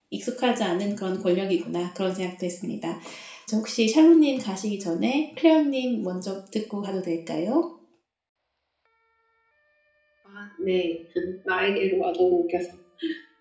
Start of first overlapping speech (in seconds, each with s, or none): none